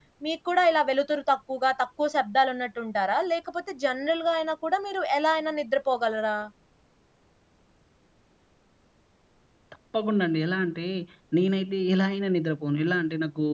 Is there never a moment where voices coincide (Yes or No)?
Yes